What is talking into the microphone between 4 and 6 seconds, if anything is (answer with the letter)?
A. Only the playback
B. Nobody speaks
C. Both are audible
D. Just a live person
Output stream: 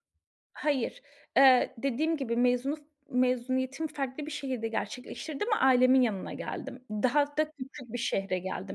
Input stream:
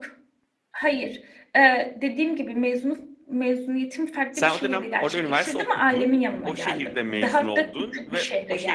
C